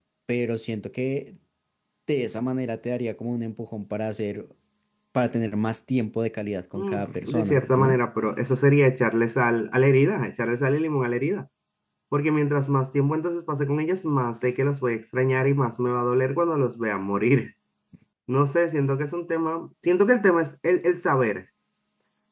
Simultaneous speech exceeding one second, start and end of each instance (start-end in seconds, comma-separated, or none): 6.7-8.0